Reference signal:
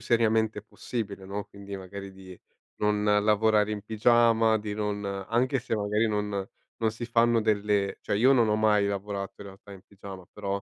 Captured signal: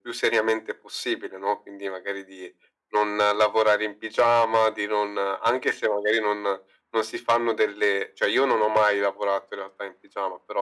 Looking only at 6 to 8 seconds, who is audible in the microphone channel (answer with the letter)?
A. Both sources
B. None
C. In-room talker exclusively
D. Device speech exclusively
D